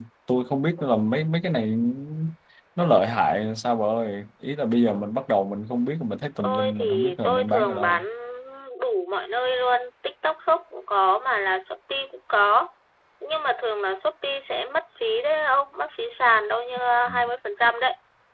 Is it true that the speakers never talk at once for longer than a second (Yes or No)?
No